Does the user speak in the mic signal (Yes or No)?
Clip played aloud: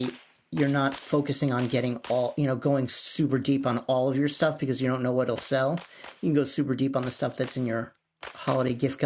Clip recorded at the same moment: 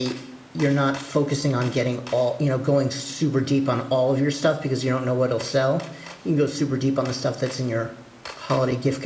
No